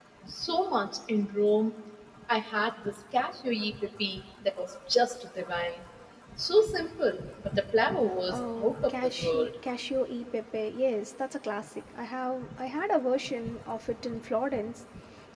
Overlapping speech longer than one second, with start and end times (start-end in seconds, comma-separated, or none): 8.3-9.5